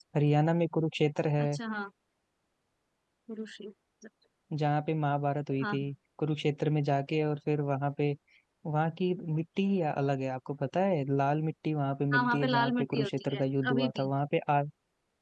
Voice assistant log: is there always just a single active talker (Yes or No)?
No